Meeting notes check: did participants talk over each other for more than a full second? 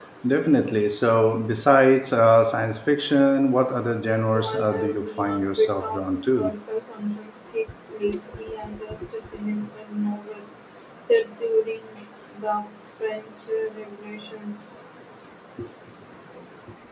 Yes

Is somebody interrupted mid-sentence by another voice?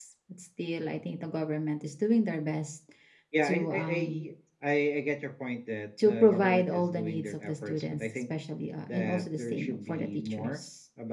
Yes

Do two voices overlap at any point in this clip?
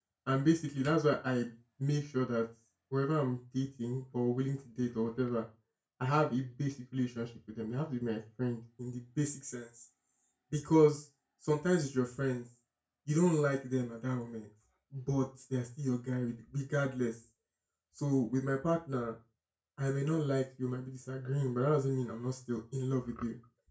No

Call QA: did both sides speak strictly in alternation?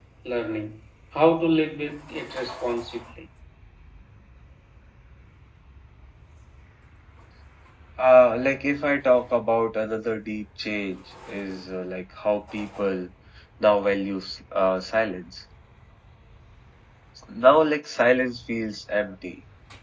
Yes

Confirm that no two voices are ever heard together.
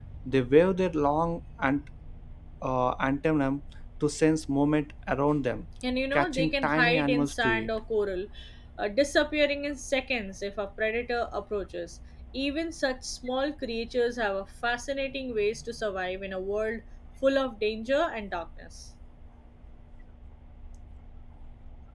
No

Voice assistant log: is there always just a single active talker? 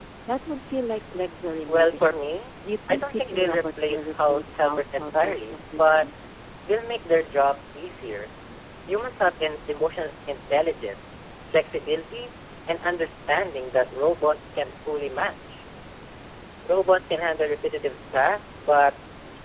No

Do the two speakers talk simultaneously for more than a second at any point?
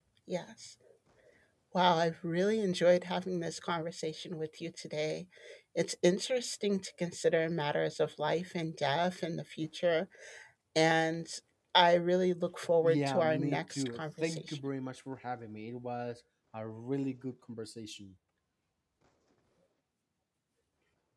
Yes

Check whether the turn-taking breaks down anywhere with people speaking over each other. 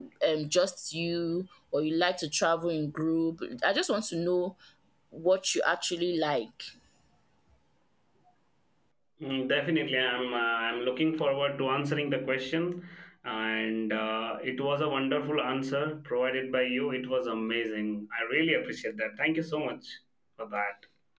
No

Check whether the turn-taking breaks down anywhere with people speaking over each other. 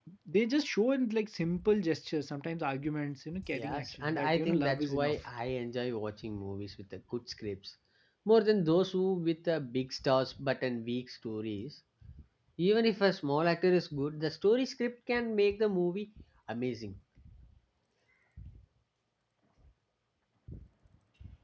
Yes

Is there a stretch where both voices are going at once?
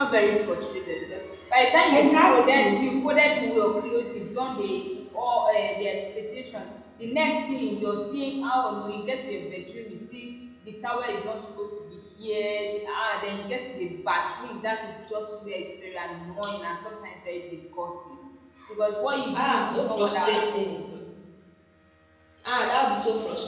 Yes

